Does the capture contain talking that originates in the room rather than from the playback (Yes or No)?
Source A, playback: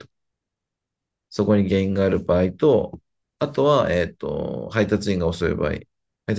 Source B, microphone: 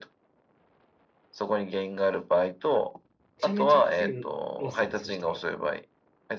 Yes